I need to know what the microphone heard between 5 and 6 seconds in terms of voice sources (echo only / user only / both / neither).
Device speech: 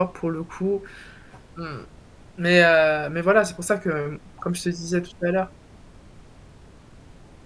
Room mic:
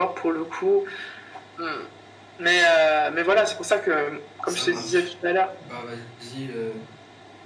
both